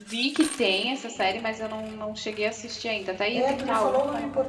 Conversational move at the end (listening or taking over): taking over